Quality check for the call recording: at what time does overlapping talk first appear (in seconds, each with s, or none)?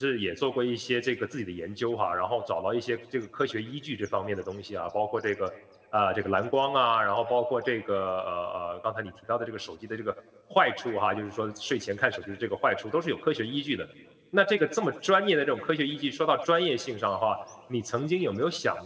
none